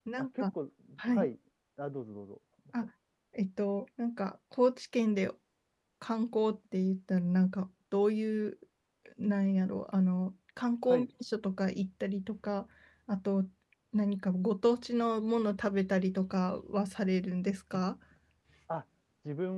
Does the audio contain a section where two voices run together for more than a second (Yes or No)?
No